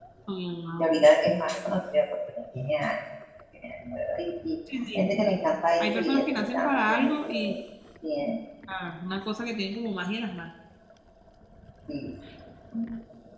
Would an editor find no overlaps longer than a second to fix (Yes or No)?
No